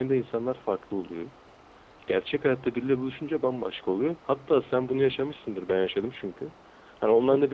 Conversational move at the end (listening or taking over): listening